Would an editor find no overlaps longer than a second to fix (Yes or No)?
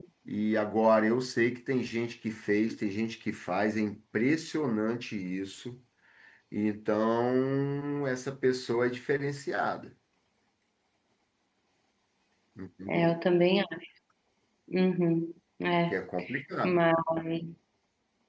Yes